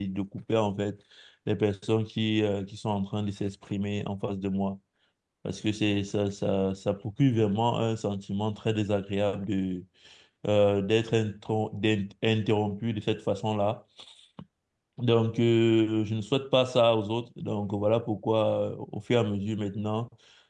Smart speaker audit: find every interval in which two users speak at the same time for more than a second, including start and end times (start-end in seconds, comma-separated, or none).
none